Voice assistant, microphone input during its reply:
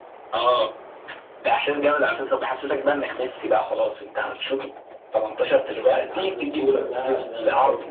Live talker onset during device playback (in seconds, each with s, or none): 5.8 s